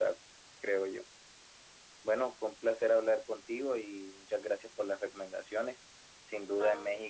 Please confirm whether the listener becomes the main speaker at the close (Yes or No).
No